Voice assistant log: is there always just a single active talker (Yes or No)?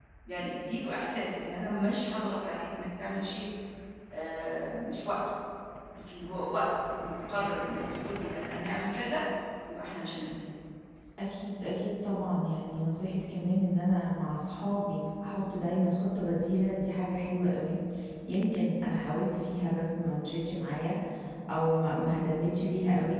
Yes